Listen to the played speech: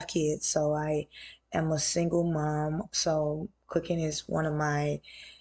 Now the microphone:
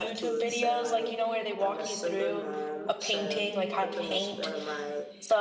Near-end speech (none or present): present